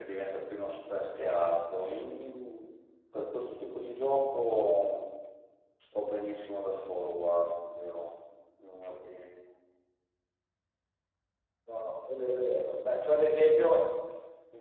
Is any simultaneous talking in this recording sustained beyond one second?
No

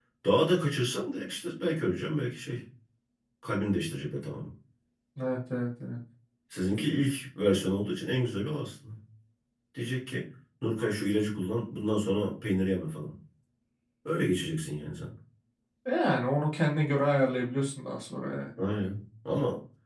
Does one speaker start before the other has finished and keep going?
No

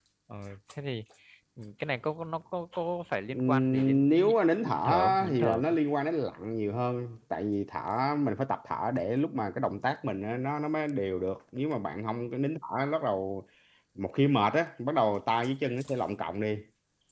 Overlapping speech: Yes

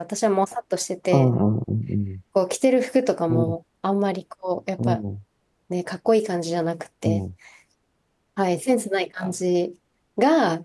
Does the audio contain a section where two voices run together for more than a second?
No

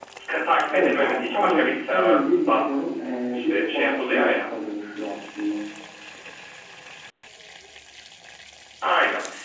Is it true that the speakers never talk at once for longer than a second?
No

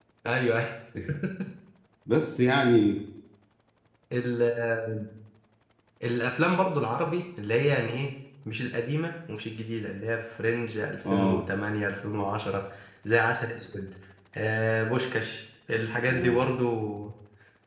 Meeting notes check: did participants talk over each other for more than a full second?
No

